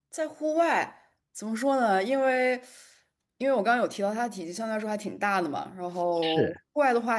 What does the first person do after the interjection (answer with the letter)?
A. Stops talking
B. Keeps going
B